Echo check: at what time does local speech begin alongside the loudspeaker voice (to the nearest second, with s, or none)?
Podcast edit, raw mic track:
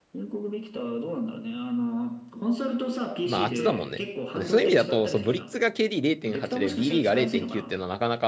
3 s